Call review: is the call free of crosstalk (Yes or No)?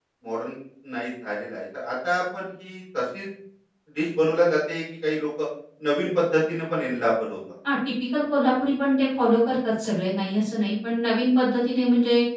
Yes